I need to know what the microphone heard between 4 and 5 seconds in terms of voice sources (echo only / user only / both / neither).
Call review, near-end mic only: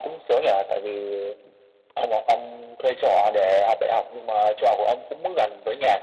echo only